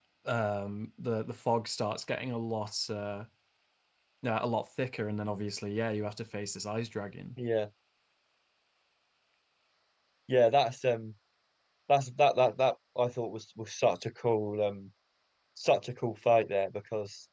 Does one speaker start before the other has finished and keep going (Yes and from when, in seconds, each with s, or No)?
No